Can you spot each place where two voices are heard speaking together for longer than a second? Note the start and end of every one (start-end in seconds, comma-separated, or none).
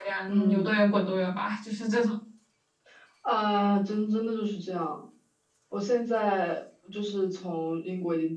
none